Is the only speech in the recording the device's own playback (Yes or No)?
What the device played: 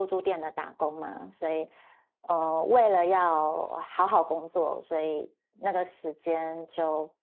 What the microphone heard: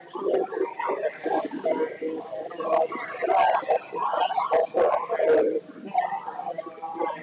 Yes